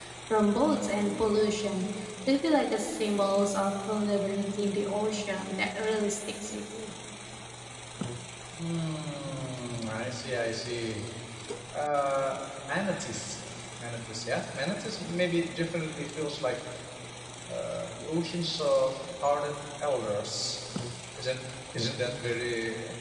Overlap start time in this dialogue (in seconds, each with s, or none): none